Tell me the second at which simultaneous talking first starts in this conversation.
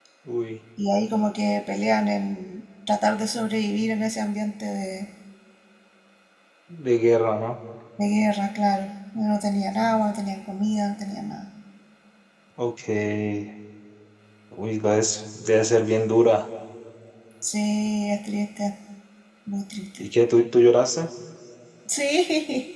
none

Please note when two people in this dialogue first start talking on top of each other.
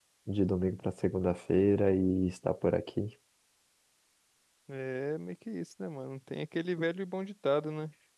none

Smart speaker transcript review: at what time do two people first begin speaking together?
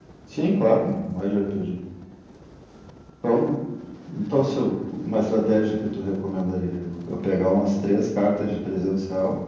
none

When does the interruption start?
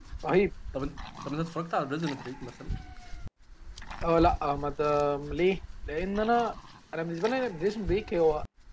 none

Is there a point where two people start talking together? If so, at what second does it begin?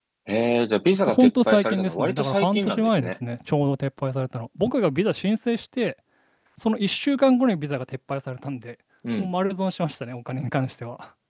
1 s

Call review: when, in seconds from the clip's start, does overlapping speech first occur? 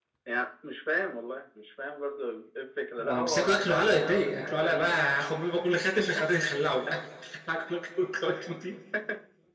3 s

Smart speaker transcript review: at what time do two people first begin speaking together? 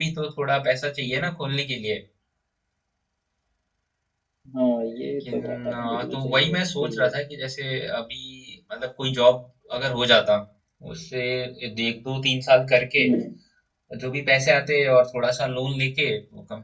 5 s

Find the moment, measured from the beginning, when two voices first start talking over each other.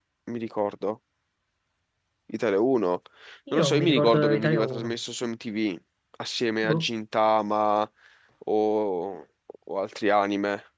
4 s

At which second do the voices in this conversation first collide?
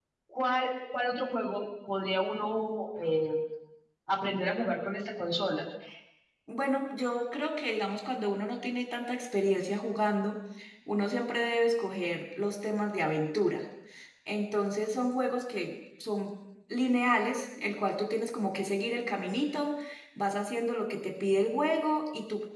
none

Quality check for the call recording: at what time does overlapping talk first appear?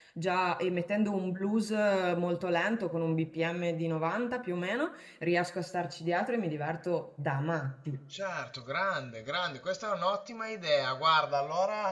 none

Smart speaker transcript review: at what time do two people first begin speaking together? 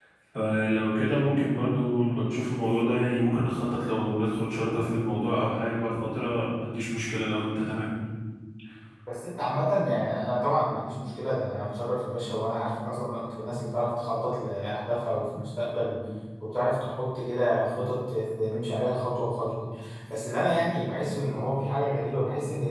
none

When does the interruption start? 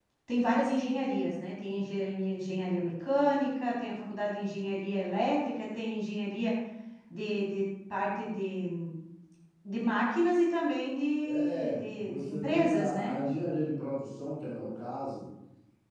11 s

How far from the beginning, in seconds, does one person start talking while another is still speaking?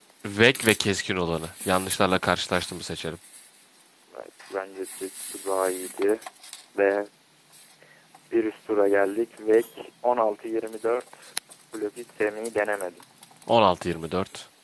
none

